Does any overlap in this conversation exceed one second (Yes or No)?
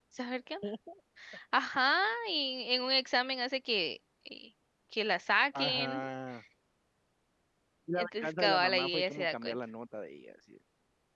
Yes